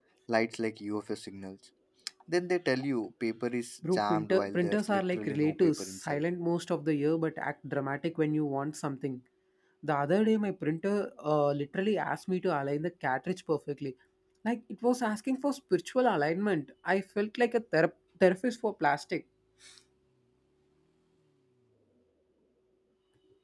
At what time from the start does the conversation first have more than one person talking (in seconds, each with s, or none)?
3.8 s